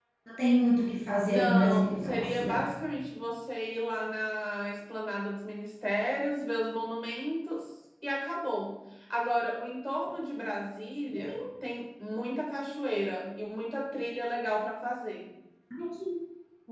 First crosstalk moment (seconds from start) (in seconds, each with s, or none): 1.2 s